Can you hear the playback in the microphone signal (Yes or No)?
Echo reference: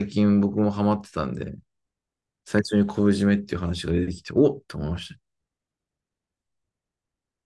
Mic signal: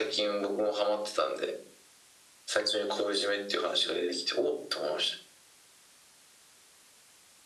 Yes